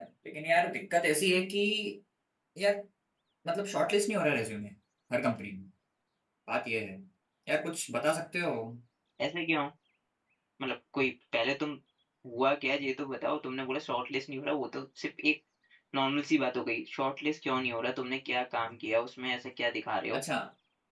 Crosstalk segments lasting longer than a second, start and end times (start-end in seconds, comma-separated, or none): none